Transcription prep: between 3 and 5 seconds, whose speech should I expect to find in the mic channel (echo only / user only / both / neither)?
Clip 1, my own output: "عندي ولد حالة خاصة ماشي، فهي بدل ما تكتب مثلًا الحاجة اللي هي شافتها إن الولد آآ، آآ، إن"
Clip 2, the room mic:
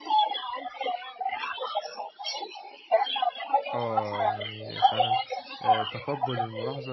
both